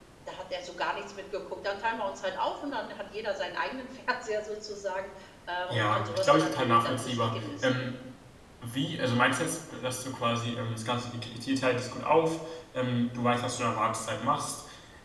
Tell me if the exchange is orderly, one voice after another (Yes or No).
No